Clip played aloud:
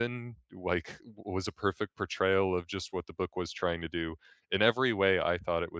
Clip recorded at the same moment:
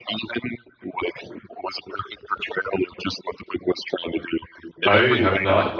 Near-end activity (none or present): present